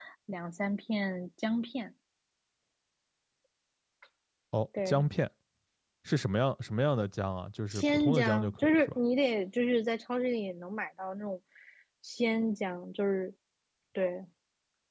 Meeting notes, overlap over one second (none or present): present